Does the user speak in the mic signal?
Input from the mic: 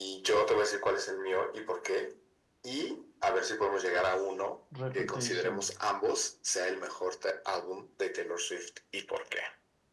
Yes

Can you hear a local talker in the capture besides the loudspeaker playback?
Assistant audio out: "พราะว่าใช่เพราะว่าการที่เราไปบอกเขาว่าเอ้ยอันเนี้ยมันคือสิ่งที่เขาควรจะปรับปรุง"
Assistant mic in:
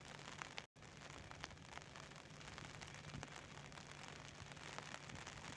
No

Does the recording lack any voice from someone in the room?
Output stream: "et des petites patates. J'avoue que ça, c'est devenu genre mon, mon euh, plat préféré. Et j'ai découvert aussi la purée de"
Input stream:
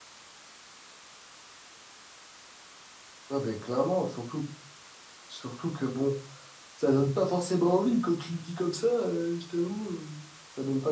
No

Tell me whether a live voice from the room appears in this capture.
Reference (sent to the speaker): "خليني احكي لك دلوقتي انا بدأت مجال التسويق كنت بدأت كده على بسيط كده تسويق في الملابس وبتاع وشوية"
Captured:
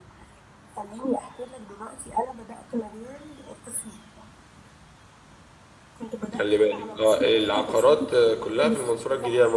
Yes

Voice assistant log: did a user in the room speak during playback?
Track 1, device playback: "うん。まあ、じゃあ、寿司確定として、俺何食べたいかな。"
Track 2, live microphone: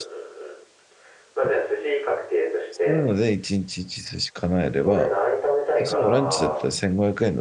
Yes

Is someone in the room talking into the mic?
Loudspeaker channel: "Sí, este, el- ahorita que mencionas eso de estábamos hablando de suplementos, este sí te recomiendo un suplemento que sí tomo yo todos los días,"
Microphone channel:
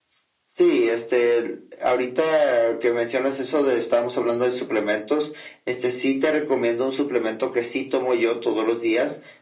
No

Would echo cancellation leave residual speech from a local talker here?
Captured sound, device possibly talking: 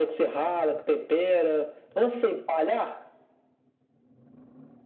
No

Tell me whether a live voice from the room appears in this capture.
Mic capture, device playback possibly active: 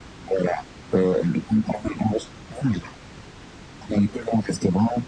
No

